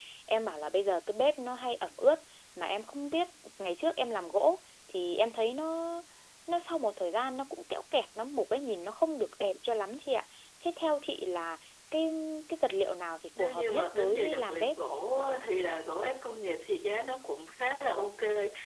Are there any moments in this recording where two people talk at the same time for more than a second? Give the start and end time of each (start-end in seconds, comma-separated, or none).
13.4-14.8